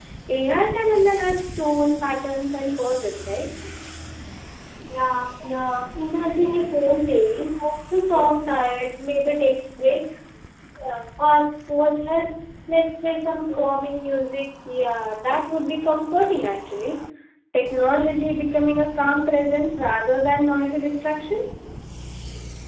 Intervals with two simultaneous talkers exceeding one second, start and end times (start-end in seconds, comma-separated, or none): none